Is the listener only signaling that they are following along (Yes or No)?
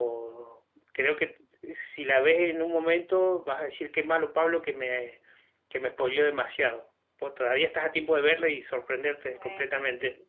No